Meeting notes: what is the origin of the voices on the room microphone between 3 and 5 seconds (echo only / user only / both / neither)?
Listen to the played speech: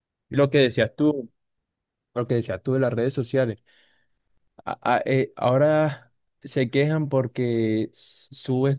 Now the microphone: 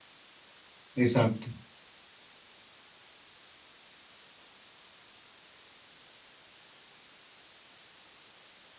neither